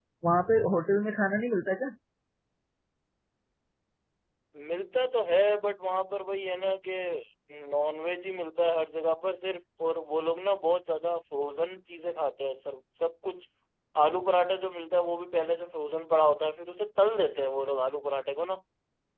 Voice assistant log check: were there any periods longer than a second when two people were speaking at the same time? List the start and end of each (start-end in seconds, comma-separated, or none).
none